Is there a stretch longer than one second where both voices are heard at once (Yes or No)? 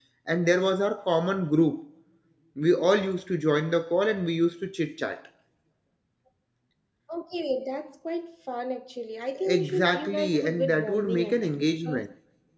Yes